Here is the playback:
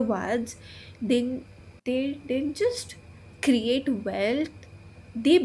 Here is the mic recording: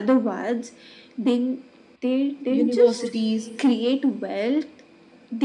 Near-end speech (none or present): present